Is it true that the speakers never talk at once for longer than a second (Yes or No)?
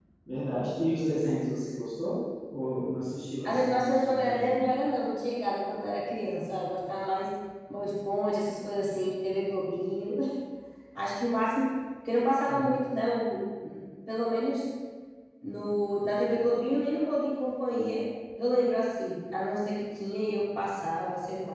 No